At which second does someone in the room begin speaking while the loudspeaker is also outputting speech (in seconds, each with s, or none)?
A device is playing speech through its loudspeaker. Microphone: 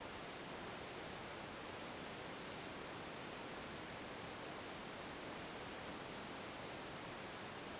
none